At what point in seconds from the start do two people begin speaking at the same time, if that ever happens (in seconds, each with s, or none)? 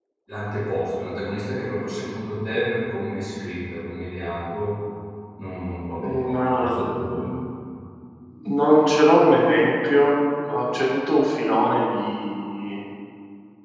6.0 s